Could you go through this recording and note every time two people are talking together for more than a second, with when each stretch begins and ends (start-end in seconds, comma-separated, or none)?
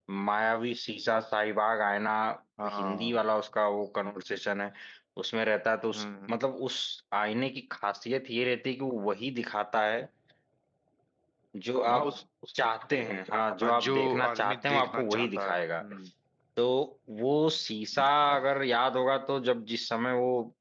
13.6-15.6